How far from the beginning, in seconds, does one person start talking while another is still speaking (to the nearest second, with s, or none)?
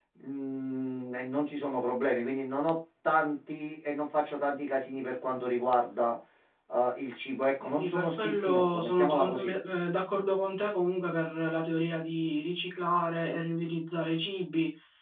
8 s